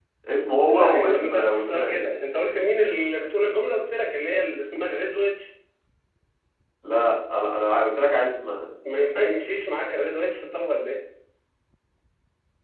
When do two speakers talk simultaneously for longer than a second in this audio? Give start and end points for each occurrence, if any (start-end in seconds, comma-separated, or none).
0.7-2.1